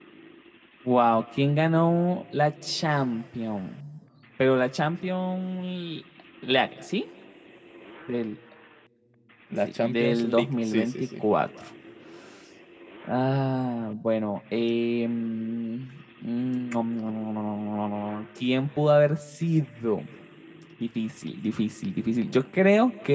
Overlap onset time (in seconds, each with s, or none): 9.7 s